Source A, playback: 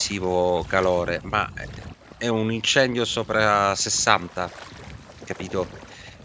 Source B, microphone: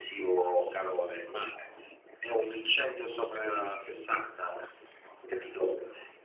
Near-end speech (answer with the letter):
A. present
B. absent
B